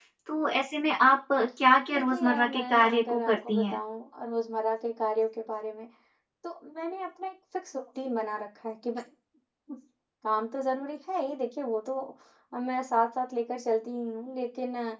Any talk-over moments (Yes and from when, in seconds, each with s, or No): Yes, from 1.9 s